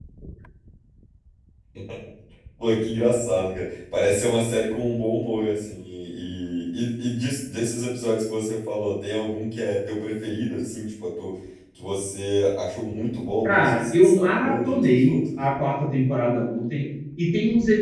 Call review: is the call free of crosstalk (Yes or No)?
No